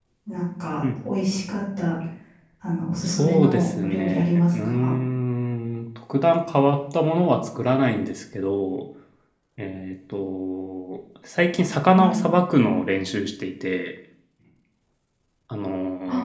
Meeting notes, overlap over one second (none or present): present